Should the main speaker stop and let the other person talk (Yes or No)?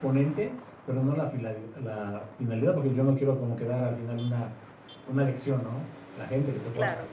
No